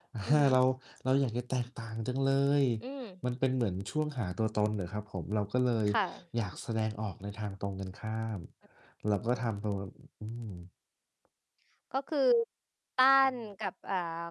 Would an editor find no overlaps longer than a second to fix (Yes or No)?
Yes